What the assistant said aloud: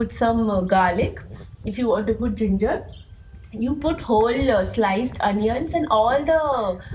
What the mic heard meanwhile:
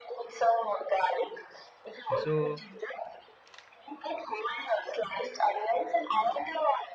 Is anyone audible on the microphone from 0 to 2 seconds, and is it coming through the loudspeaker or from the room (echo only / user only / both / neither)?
echo only